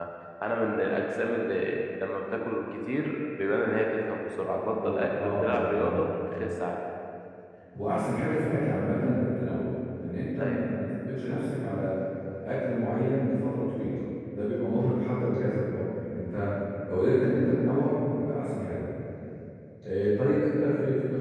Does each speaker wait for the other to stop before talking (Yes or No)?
No